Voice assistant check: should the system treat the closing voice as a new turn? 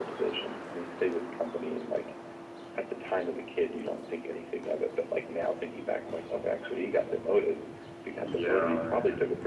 No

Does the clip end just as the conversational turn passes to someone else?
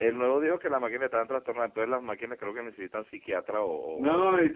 Yes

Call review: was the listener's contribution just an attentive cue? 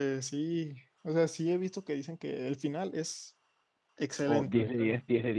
No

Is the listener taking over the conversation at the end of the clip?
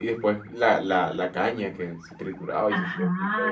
Yes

